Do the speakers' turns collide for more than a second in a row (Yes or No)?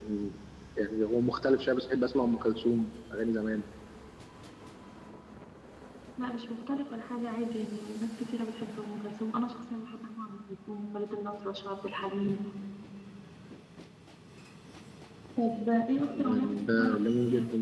Yes